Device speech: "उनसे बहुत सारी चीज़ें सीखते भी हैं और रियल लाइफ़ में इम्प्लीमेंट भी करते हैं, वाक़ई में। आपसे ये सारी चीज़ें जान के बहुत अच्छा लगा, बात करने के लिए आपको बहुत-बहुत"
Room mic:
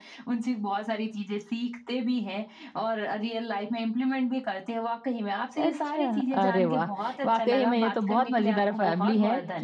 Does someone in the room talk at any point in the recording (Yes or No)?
Yes